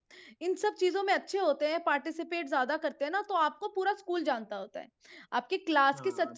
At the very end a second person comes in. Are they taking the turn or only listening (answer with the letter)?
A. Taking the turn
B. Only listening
B